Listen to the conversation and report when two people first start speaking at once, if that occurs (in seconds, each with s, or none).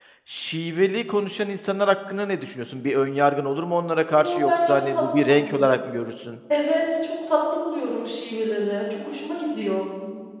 4.1 s